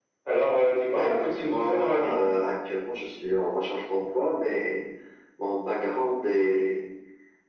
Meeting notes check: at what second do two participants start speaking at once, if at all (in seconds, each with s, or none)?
0.9 s